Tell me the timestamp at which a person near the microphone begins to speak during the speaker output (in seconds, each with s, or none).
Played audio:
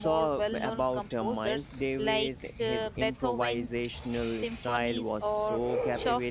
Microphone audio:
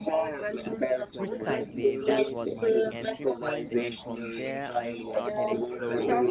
1.2 s